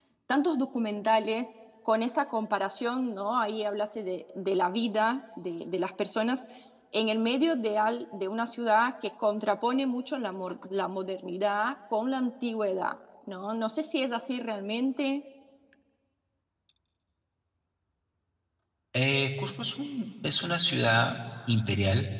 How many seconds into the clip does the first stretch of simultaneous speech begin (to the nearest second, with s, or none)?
none